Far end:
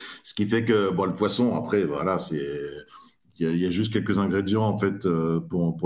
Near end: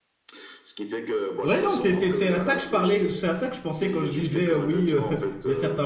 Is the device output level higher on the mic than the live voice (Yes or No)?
No